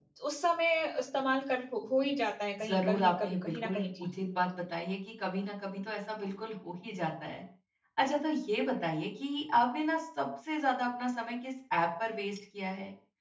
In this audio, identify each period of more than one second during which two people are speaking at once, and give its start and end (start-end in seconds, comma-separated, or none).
2.6-4.1